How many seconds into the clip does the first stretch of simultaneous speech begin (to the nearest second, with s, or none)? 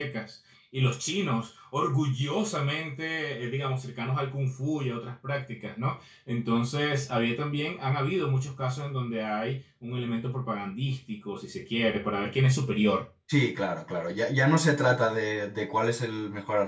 none